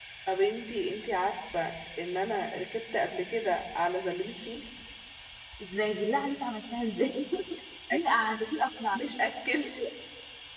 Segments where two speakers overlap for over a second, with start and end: none

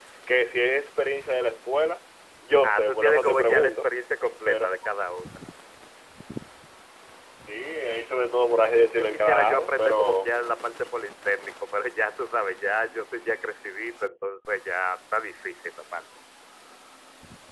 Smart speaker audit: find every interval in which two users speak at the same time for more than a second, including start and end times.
2.6-3.9, 8.7-10.3

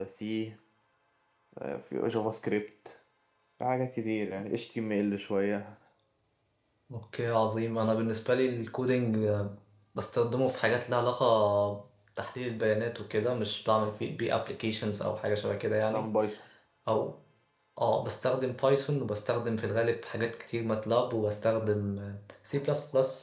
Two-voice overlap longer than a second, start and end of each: none

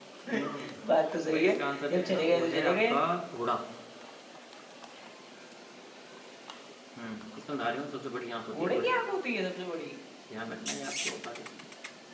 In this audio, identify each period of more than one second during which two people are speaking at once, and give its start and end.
1.3-3.0

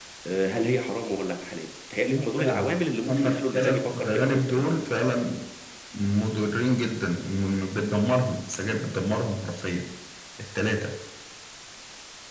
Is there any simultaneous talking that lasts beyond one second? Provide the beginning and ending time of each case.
3.1-4.7

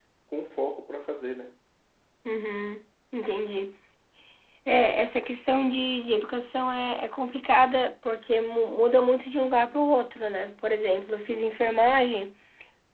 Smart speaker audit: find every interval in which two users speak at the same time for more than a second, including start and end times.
none

